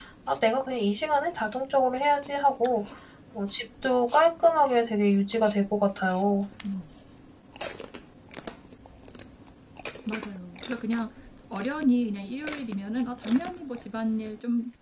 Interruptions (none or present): none